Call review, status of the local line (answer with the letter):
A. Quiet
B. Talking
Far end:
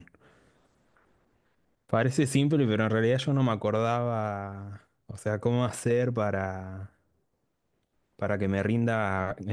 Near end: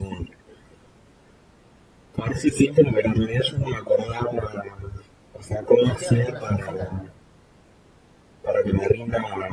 B